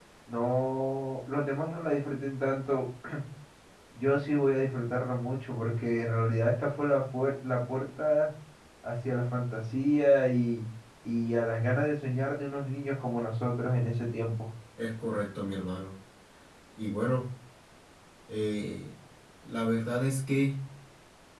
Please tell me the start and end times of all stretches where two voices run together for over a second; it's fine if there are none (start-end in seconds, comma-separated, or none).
none